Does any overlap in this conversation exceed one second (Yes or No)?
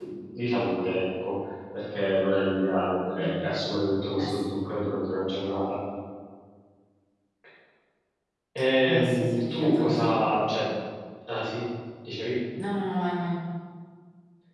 Yes